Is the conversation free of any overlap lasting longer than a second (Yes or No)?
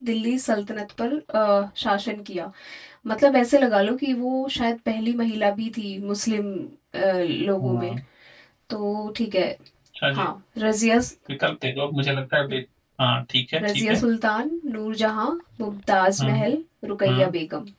Yes